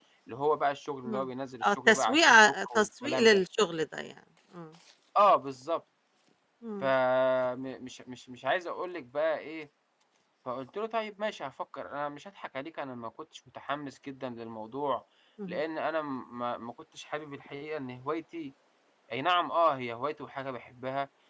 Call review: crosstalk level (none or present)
present